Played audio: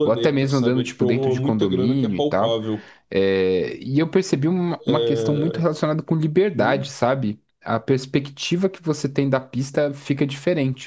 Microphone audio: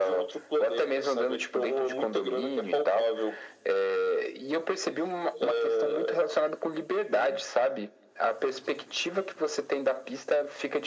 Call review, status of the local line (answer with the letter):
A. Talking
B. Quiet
B